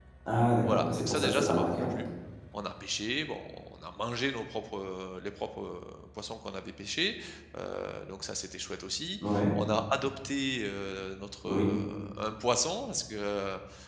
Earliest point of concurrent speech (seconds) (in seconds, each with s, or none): 0.6 s